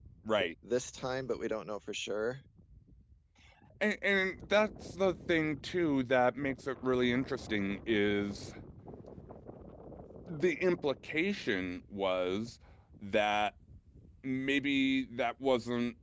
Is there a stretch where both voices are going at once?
No

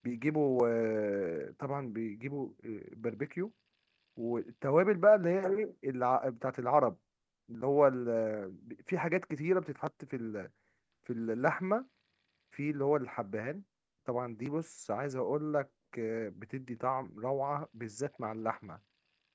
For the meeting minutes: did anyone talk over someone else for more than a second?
No

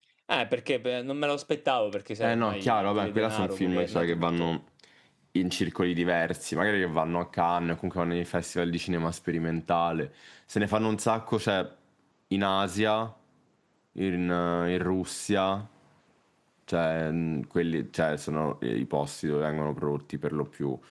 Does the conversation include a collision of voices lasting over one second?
Yes, from 2.2 s

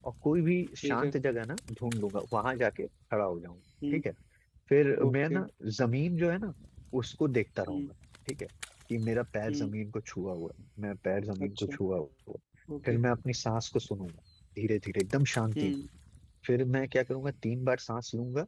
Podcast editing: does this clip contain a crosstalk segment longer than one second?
No

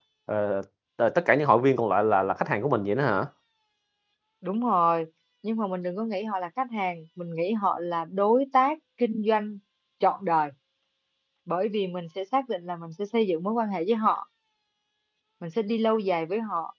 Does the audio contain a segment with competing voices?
No

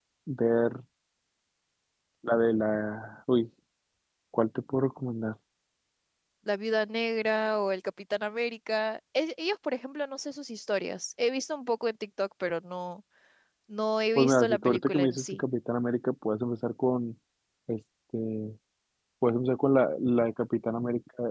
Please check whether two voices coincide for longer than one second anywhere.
Yes, from 14.2 s

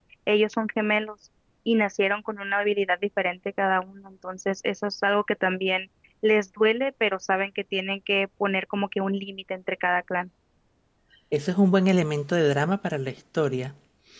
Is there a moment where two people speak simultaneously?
No

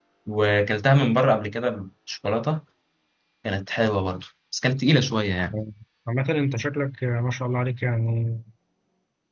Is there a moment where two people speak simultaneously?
No

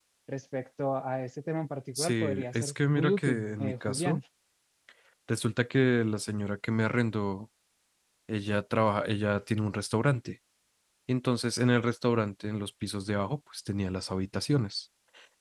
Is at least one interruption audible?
Yes, from 1.9 s

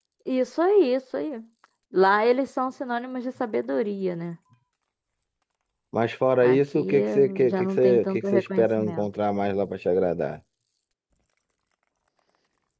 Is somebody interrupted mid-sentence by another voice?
Yes, from 6.4 s

